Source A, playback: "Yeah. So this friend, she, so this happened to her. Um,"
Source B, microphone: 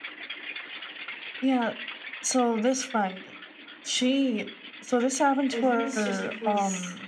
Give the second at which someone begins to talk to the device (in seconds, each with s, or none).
5.5 s